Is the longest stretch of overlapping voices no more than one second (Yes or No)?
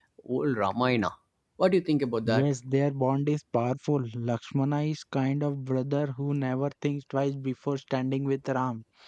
Yes